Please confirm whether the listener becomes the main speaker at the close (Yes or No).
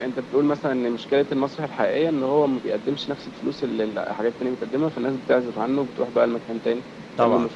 Yes